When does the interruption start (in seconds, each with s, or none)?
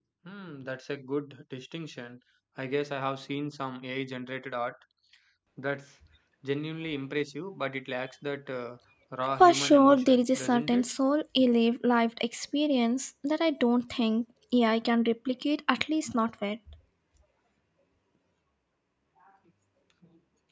9.4 s